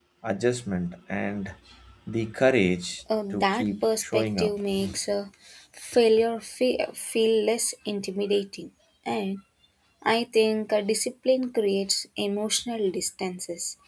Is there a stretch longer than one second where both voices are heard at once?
Yes, from 3.1 s

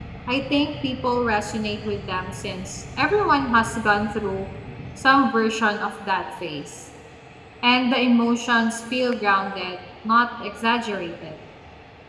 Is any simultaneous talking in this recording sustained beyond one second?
No

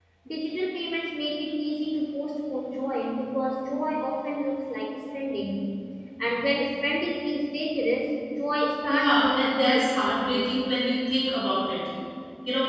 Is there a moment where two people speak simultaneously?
Yes, from 8.9 s

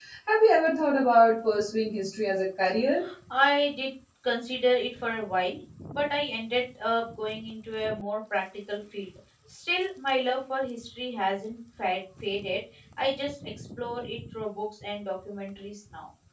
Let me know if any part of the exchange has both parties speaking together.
No

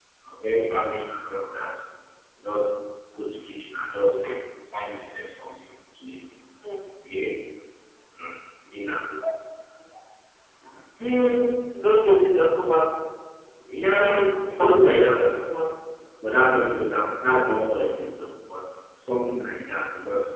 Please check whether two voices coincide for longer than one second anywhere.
Yes, from 14.0 s

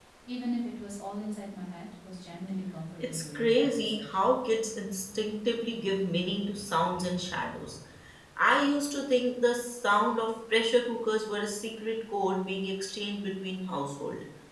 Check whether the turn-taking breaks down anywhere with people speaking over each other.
Yes, from 3.0 s

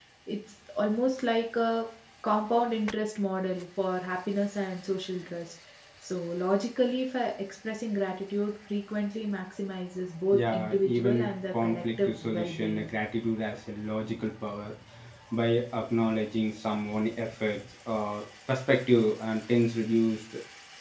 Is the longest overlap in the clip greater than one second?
Yes, from 10.3 s

